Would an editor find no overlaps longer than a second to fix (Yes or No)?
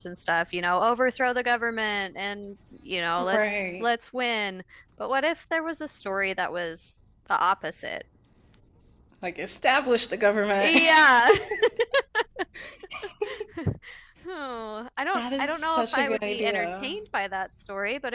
No